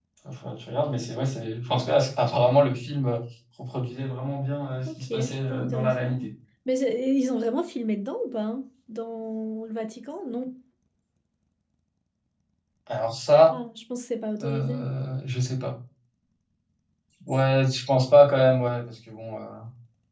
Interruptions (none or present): present